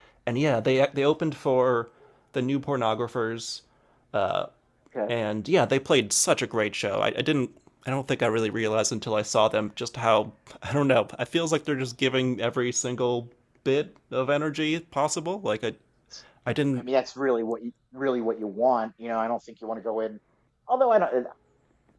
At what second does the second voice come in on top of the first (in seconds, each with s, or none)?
none